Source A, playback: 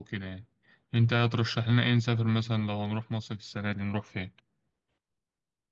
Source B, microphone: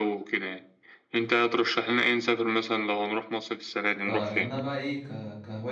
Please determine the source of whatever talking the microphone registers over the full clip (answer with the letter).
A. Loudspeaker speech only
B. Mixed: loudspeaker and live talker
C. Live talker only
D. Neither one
B